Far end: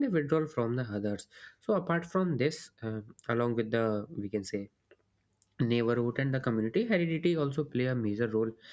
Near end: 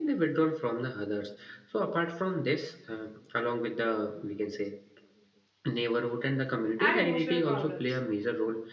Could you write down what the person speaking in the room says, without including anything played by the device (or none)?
and emotional problems.